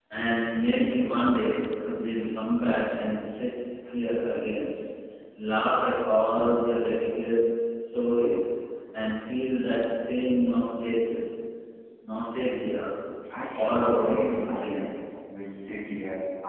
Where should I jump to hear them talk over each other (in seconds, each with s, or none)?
13.5 s